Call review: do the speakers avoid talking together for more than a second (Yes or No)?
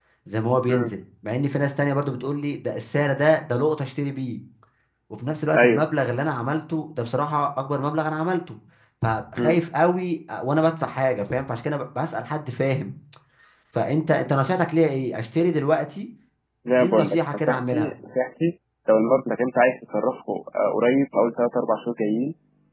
No